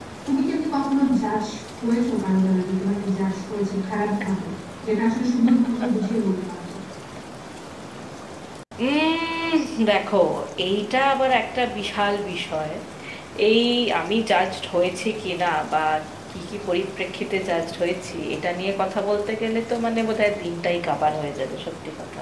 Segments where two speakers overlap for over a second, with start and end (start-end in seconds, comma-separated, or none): none